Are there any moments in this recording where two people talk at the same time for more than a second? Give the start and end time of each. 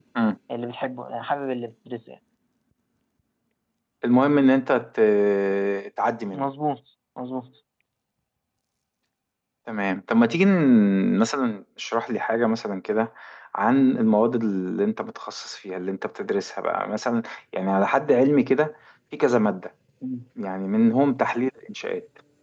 none

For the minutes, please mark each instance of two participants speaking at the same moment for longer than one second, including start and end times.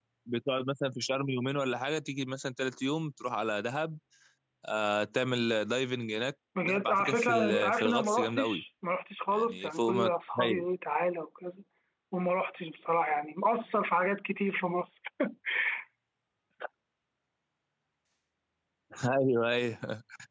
6.6-8.6, 9.3-10.6

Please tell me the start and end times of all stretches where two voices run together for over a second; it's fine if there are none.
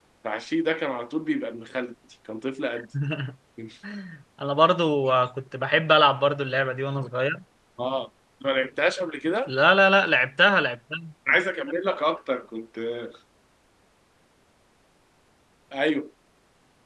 none

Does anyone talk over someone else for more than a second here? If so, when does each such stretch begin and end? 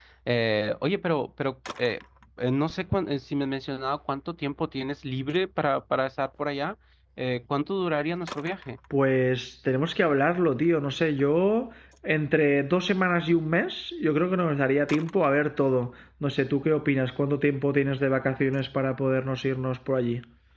none

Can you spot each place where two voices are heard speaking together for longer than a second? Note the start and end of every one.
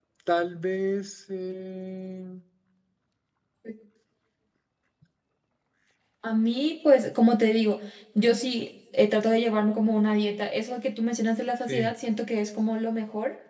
none

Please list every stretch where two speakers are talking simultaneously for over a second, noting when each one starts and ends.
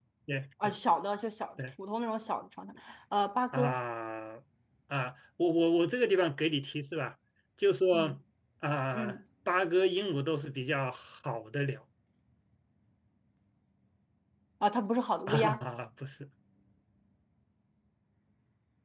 none

